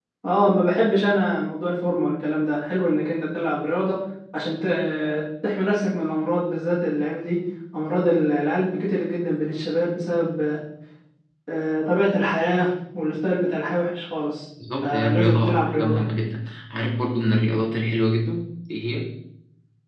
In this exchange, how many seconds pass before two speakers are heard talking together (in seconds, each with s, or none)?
14.6 s